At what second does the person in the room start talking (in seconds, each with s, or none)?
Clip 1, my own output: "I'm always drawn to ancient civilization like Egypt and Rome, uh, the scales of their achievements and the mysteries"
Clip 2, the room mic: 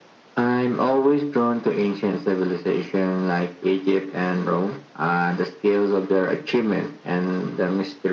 none